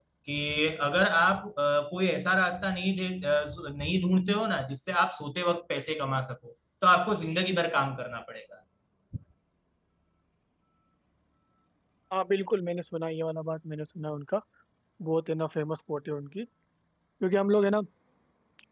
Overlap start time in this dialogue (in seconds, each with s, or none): none